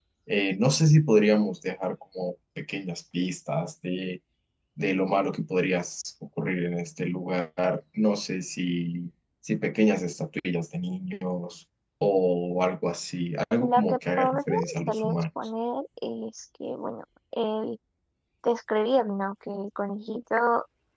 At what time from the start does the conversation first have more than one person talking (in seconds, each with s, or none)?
13.6 s